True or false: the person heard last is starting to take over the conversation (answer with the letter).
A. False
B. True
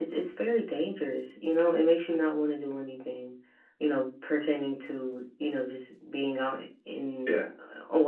A